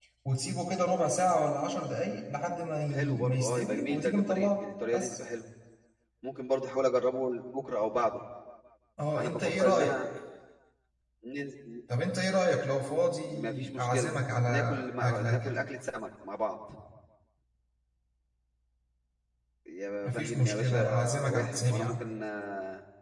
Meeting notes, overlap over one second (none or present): present